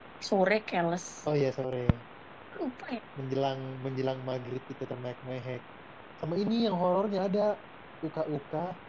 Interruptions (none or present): none